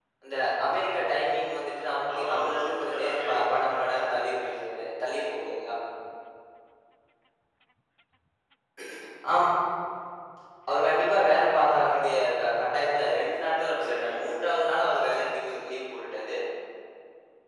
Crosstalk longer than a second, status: present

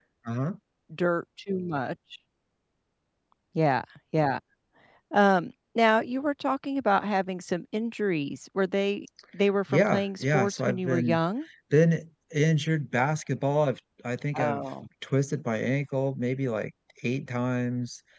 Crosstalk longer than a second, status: present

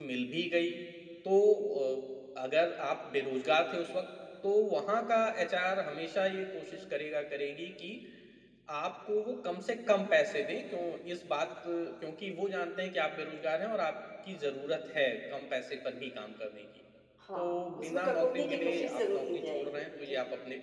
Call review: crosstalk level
present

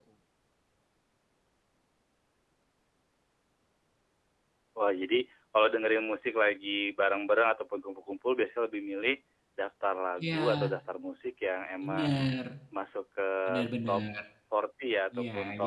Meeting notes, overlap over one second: none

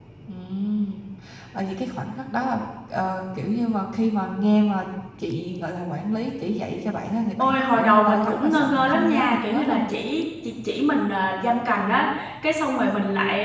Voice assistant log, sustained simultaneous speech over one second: present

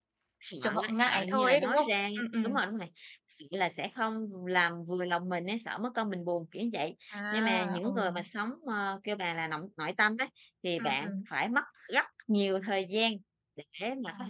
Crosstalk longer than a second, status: present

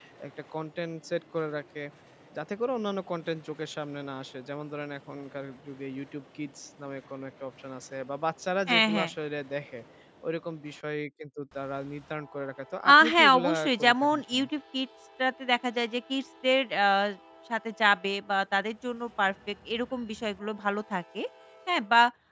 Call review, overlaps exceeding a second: present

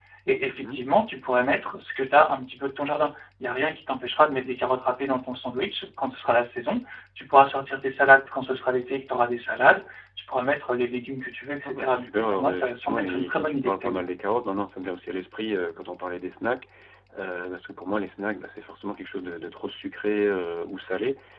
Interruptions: present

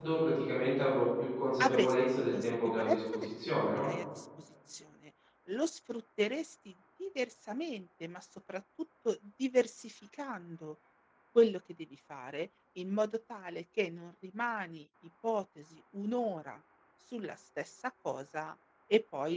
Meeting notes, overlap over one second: present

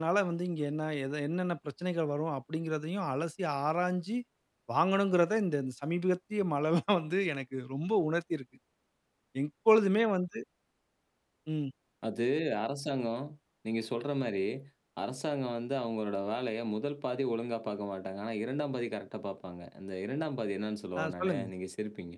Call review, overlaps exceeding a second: none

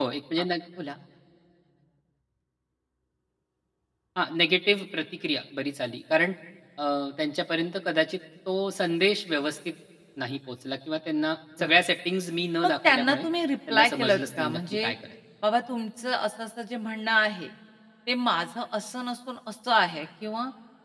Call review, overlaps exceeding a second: present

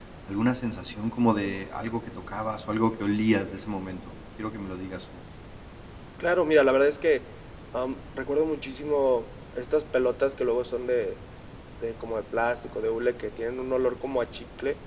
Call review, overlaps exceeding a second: none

